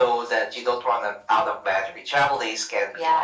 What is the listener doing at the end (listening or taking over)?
taking over